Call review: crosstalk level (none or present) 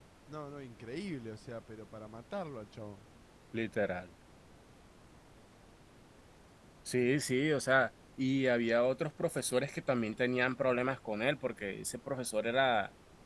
none